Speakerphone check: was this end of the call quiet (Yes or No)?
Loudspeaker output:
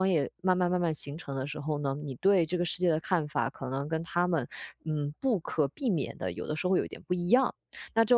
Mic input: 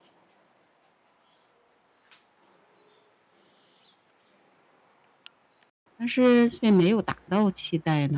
No